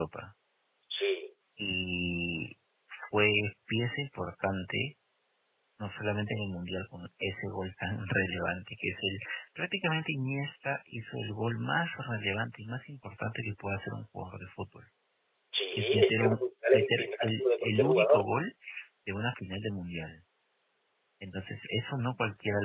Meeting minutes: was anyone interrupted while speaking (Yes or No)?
Yes